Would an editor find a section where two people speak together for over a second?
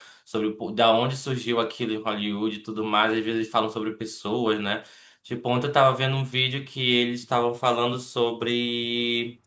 No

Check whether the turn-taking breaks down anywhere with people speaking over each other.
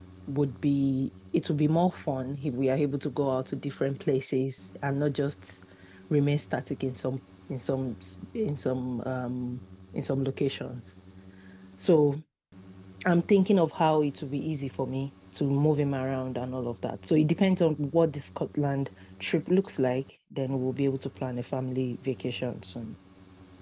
No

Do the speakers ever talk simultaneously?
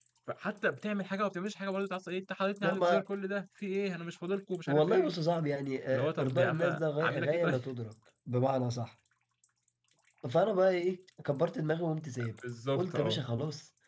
Yes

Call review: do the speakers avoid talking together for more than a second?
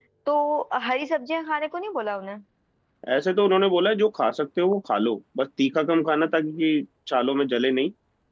Yes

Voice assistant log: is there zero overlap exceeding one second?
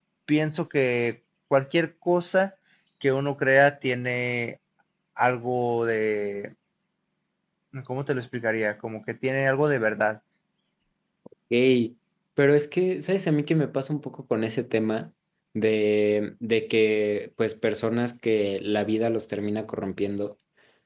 Yes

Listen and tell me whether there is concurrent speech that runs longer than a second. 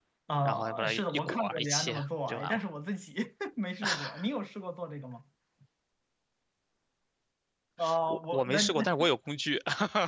Yes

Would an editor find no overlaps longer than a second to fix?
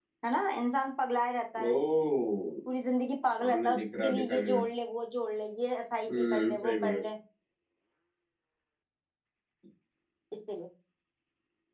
No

